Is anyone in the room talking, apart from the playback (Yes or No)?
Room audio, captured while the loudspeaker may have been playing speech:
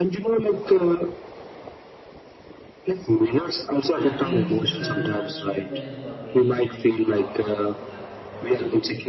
Yes